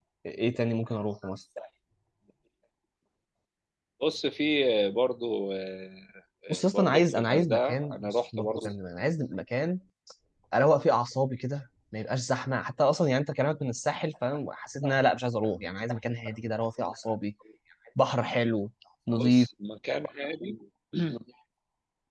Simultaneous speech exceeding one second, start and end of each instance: 6.5-8.7

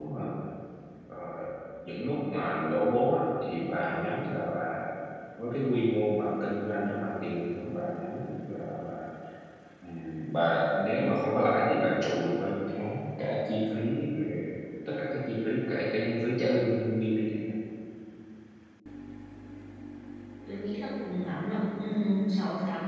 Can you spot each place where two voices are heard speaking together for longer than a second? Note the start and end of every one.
none

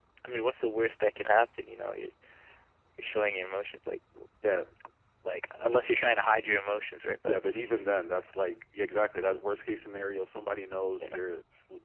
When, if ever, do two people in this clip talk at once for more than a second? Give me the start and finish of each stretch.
none

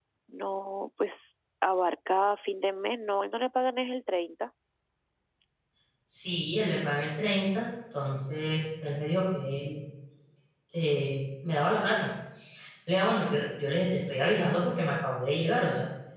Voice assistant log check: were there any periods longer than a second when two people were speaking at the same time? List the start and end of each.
none

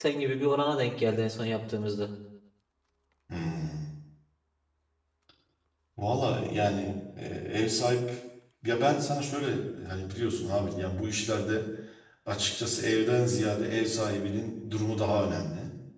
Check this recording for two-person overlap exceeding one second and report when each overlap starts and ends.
none

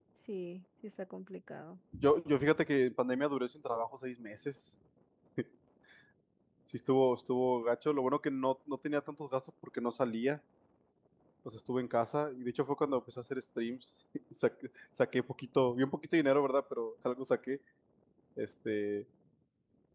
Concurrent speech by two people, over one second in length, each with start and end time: none

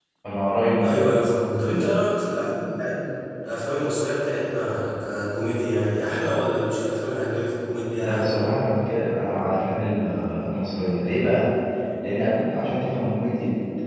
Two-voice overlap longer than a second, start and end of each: none

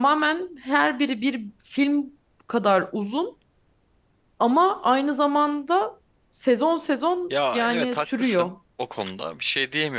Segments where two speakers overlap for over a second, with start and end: 7.3-8.5

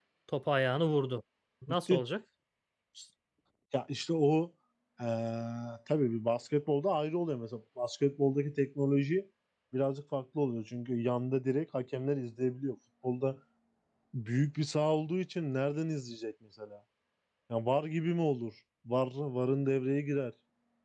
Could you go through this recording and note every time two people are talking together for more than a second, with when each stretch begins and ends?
none

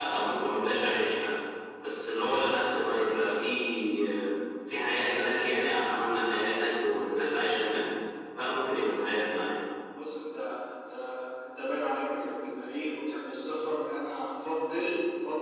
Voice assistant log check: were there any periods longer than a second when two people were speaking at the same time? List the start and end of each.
none

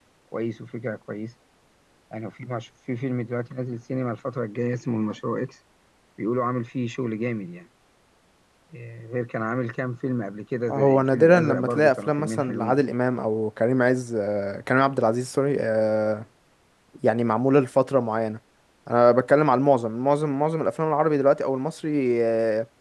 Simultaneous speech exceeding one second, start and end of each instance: 10.7-12.8

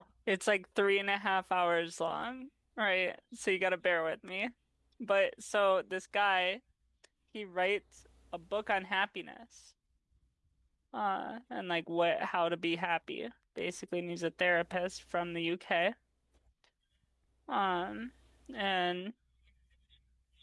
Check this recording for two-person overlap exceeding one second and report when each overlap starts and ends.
none

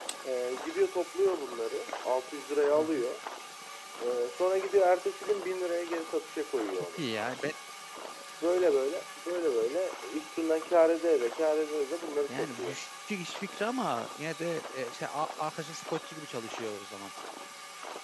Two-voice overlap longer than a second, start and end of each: none

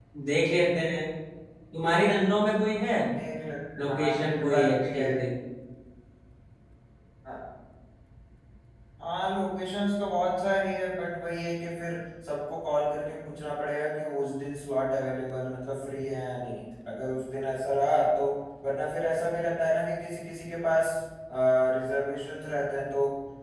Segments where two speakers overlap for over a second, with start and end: 3.9-5.1

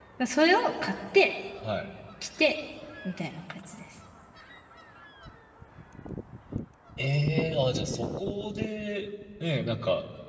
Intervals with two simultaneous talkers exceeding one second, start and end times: none

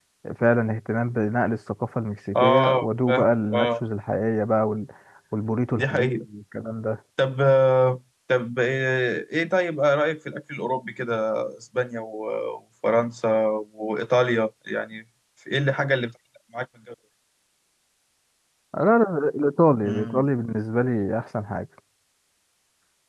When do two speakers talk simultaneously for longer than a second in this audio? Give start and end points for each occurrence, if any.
2.4-3.8

